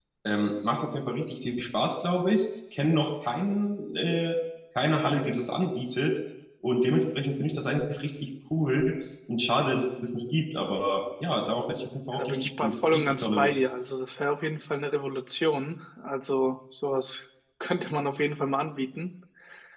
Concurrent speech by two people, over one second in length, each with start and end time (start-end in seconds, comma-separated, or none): 12.1-13.7